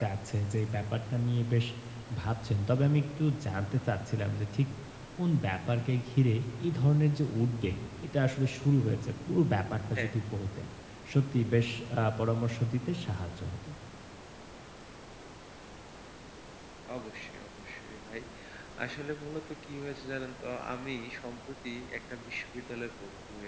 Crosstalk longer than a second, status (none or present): none